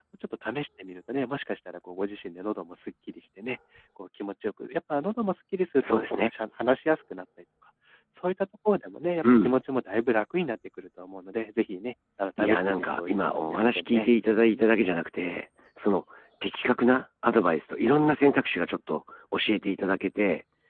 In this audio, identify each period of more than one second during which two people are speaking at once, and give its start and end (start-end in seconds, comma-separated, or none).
12.4-14.1